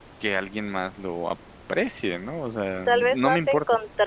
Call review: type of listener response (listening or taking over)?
taking over